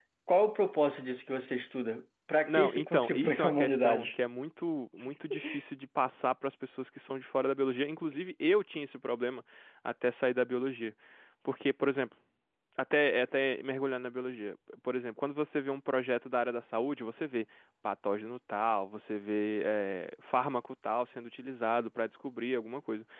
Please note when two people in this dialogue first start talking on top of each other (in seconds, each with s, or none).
2.5 s